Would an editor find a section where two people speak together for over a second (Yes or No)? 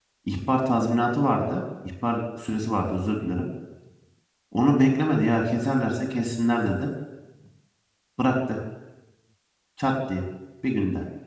No